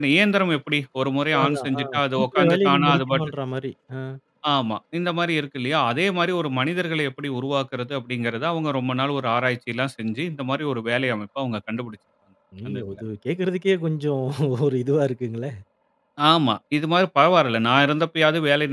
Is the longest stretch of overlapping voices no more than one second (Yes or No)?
No